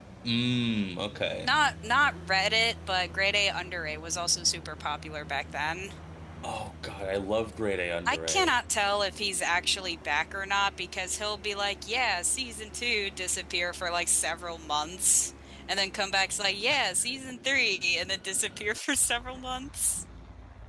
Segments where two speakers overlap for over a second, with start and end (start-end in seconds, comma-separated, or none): none